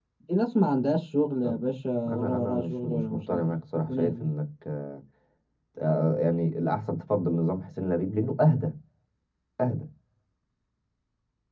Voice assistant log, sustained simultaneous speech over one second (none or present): present